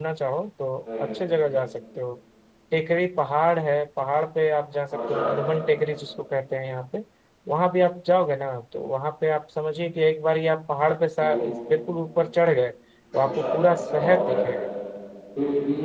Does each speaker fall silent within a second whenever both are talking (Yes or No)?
Yes